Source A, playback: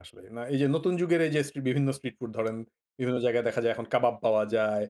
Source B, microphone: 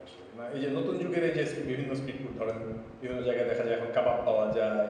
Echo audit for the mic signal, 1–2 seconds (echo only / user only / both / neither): echo only